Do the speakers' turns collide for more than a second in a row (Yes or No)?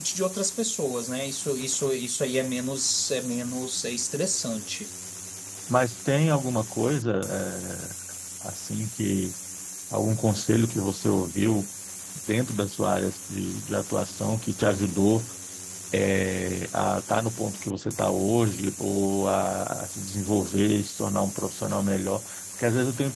No